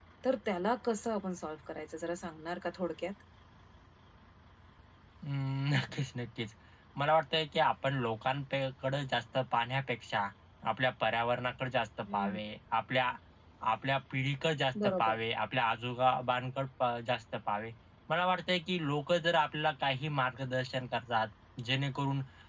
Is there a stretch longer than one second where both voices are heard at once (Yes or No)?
No